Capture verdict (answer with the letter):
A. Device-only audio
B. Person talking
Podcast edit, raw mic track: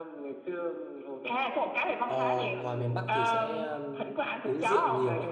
B